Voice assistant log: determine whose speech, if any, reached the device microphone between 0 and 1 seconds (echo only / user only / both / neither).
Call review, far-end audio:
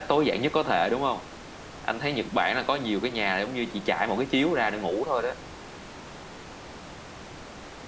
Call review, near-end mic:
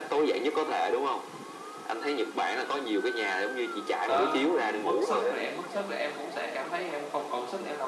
echo only